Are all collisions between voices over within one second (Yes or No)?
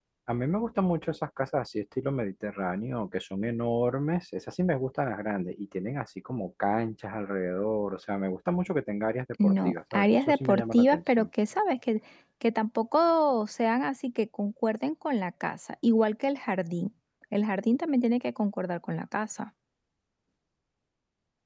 No